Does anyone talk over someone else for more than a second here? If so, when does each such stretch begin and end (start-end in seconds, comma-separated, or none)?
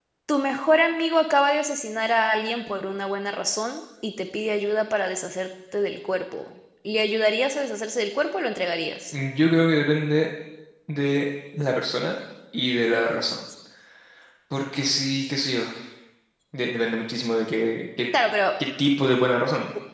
none